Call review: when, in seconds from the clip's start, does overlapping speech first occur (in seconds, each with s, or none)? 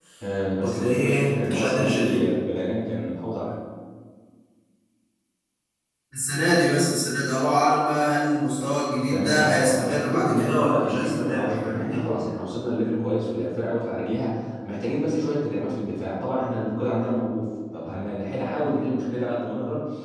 0.6 s